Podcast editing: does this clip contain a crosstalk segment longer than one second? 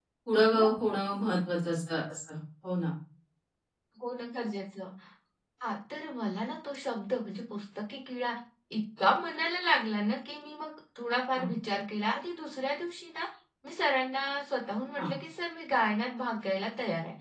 No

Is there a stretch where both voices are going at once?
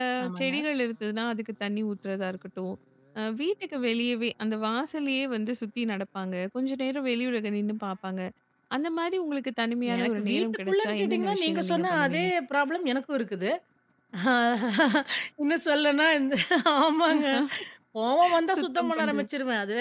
Yes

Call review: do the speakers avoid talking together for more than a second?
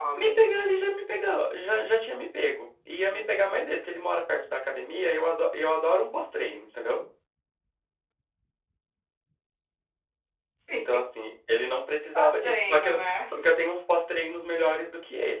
No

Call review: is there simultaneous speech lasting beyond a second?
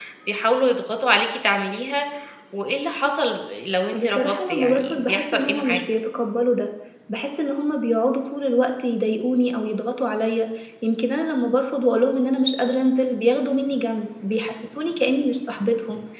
Yes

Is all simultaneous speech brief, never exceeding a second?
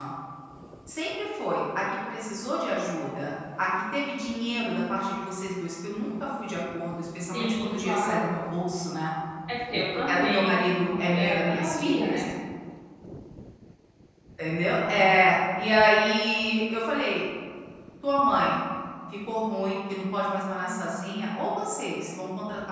No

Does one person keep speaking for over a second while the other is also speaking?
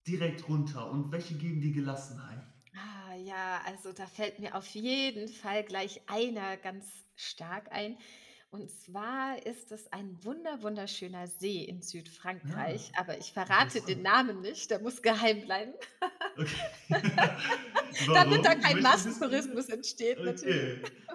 Yes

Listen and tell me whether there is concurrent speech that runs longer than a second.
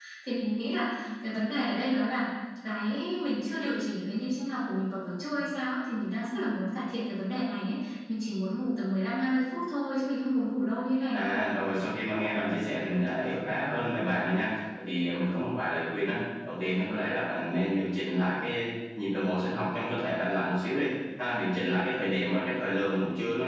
No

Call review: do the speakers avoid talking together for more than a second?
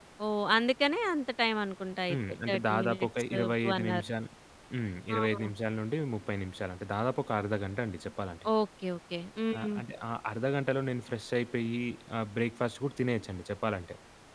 No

